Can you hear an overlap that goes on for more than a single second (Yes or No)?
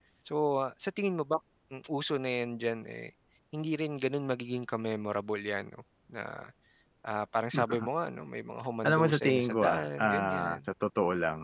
Yes